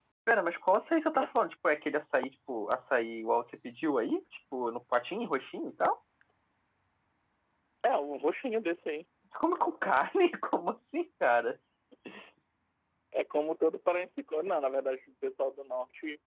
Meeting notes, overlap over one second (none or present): none